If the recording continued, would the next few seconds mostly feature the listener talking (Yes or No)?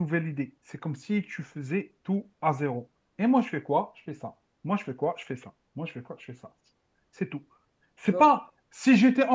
No